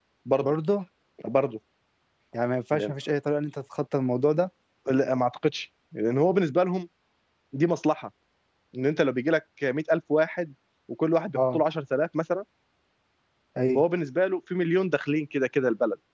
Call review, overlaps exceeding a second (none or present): none